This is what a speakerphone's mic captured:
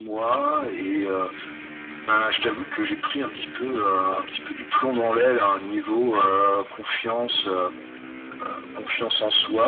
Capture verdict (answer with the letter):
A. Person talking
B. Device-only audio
B